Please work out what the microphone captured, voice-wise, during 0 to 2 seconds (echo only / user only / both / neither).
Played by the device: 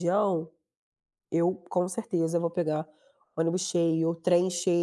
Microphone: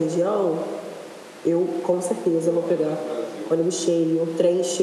echo only